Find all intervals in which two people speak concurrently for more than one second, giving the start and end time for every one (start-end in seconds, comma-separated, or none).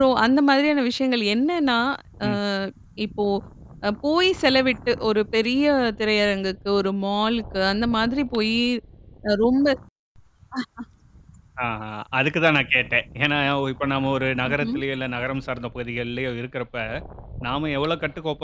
none